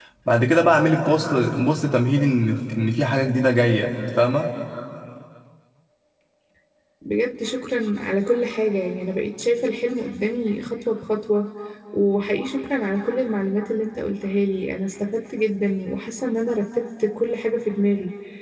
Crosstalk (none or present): none